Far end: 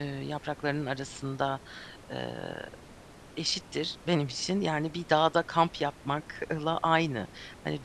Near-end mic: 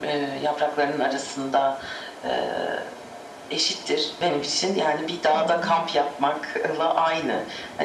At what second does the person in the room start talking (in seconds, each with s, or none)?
5.3 s